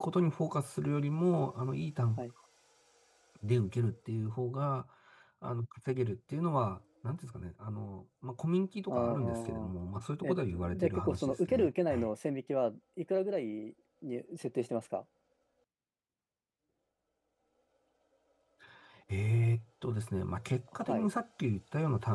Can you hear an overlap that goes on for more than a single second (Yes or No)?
Yes